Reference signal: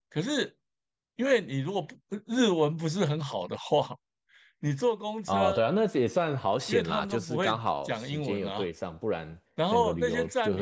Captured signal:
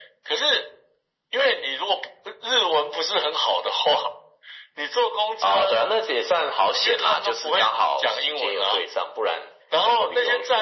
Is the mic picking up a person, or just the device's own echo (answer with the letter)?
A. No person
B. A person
A